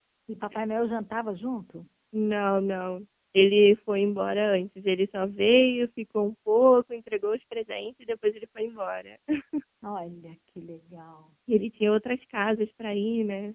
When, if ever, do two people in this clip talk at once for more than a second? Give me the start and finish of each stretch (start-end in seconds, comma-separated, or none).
none